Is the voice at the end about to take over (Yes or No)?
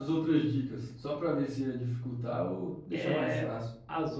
Yes